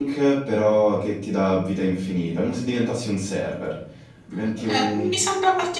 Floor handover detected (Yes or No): Yes